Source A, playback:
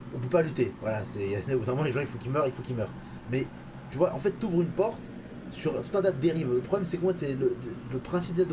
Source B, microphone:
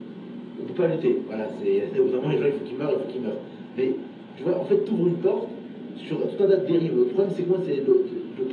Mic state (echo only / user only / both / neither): echo only